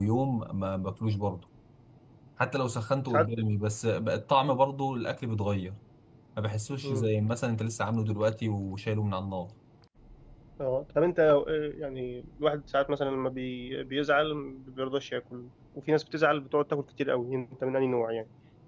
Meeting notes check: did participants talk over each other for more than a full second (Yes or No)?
No